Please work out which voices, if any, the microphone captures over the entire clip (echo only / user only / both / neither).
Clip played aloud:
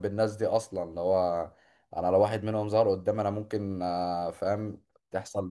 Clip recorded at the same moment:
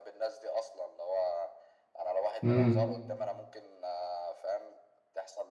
both